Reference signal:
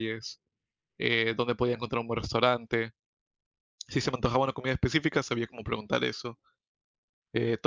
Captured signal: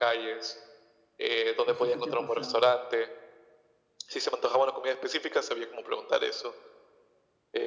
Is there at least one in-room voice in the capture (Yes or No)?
Yes